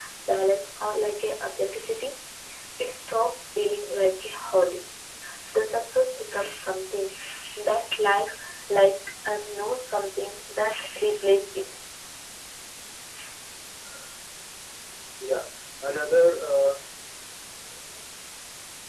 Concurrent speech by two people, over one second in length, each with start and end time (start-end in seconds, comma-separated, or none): none